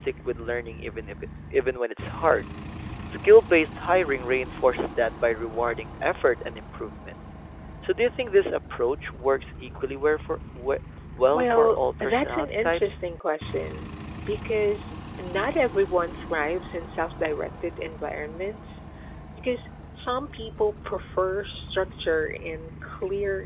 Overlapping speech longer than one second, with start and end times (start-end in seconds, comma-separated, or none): 11.3-13.0